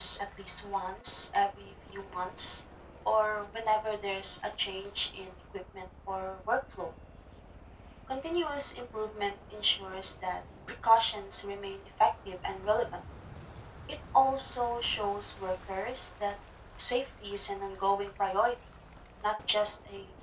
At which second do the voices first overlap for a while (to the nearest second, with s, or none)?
none